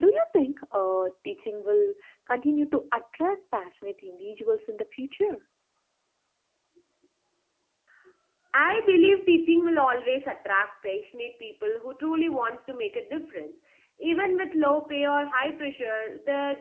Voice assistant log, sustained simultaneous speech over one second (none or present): none